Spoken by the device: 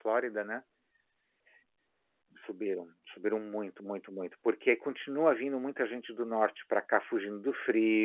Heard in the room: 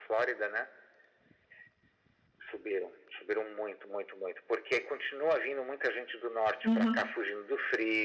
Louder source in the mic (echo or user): user